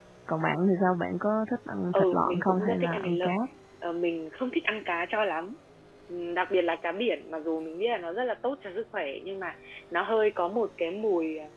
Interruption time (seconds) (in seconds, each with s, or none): 1.9 s